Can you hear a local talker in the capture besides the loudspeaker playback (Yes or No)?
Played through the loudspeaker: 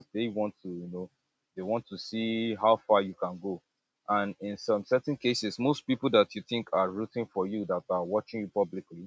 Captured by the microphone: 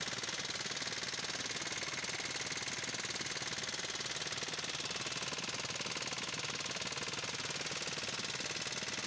No